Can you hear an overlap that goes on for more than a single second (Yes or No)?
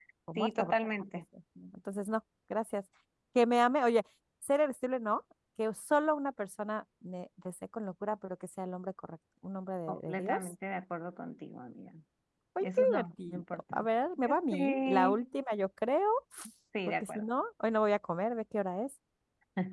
Yes